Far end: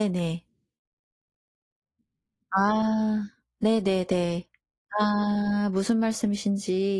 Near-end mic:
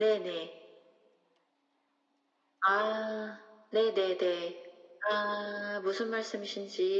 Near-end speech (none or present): none